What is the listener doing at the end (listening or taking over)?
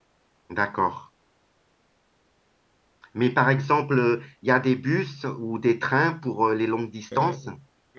taking over